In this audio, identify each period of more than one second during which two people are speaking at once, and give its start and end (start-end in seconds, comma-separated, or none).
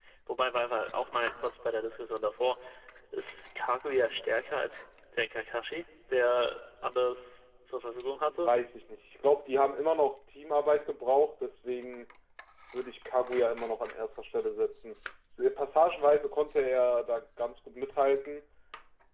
none